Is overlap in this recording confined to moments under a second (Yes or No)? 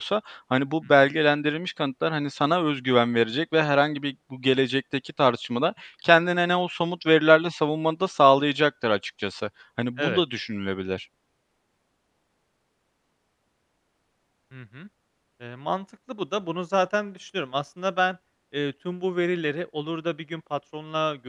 Yes